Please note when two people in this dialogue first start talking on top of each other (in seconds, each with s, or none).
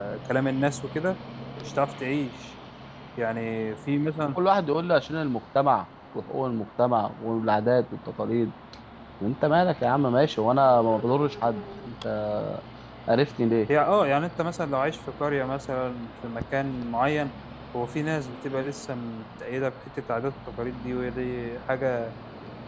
none